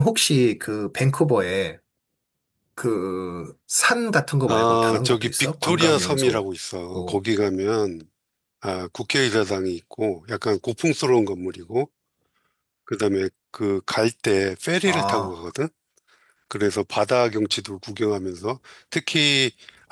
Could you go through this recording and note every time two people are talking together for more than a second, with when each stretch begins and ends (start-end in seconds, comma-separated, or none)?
4.5-6.4